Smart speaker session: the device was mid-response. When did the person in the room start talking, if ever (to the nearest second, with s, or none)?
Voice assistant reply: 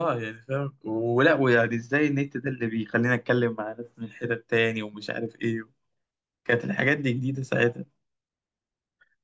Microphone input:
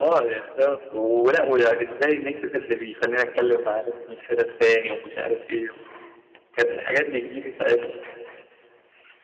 none